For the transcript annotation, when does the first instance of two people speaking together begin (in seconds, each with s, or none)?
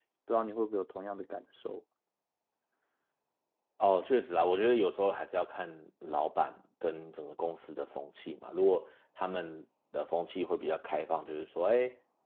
none